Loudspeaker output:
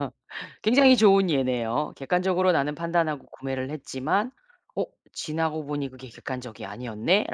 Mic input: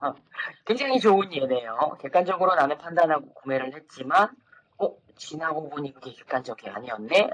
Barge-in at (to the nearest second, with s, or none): none